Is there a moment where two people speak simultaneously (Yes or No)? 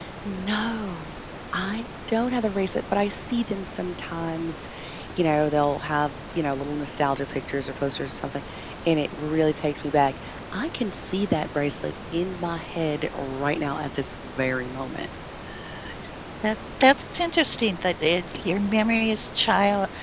No